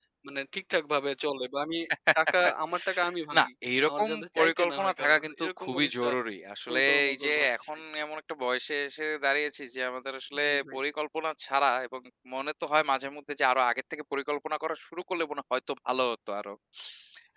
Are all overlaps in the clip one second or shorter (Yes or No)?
No